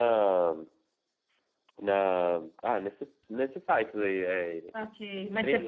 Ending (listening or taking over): taking over